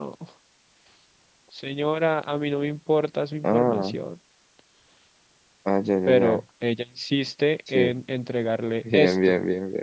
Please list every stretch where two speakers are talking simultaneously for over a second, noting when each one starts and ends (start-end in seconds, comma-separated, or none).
none